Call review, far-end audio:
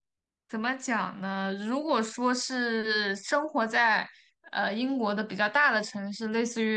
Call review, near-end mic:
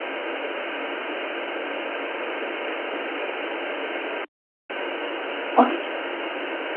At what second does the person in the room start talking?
5.5 s

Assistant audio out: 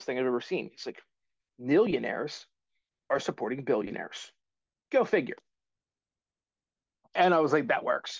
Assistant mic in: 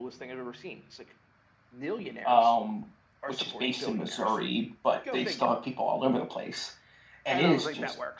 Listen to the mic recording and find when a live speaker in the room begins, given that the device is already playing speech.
2.2 s

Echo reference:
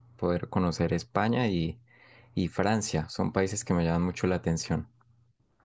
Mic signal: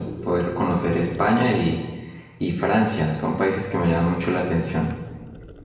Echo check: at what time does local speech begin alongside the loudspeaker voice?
none

